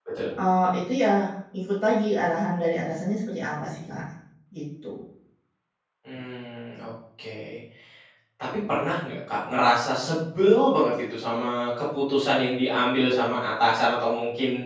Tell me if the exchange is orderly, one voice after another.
Yes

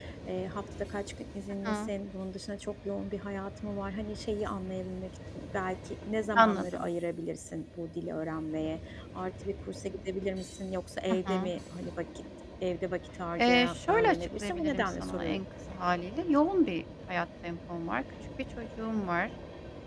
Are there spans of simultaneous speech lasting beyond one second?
Yes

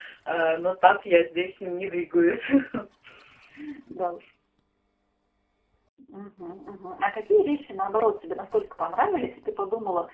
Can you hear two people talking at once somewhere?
No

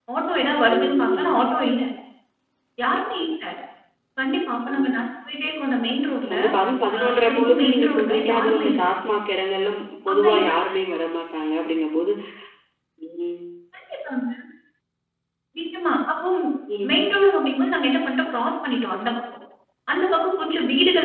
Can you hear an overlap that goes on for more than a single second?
Yes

